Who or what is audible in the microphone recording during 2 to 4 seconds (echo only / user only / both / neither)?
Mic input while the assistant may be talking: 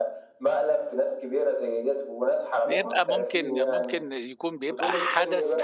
both